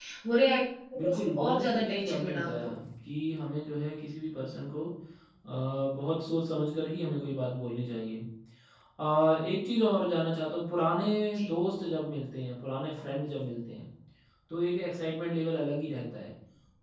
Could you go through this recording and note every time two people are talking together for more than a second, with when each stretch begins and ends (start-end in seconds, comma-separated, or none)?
1.0-2.6